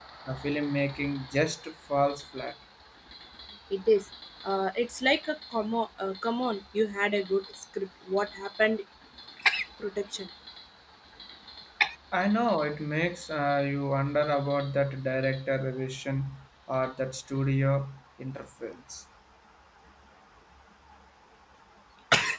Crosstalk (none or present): none